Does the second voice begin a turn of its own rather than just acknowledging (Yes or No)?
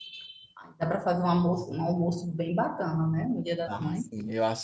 Yes